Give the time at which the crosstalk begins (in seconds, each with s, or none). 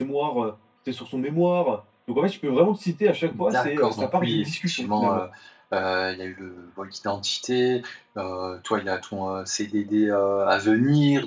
3.3 s